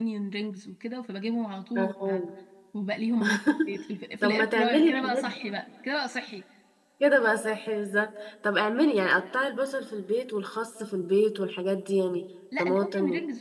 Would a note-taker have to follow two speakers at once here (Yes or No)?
Yes